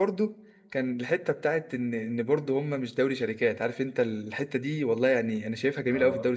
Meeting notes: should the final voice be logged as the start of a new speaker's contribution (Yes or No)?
No